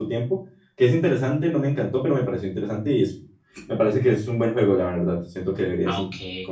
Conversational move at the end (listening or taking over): taking over